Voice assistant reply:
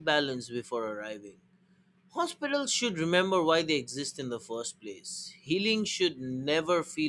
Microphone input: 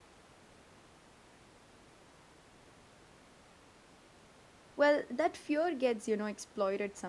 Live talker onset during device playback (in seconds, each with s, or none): 4.8 s